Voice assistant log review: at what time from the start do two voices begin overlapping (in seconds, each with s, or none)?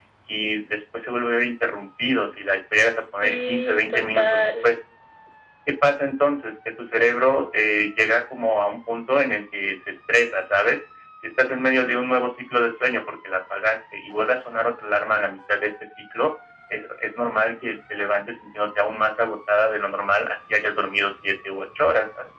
3.2 s